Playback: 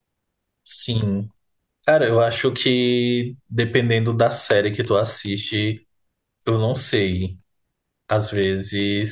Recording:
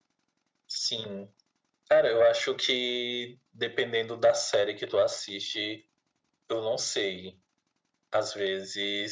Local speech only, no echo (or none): none